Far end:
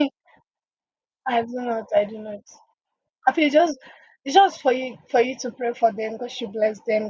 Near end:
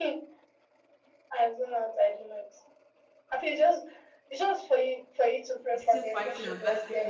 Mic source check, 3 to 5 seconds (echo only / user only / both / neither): echo only